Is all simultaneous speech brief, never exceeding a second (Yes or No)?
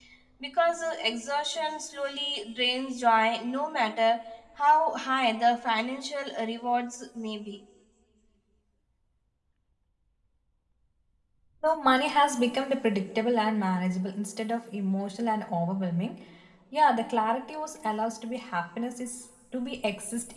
Yes